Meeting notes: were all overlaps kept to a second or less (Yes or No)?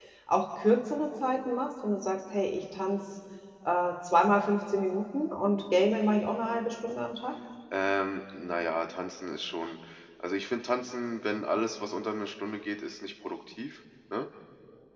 Yes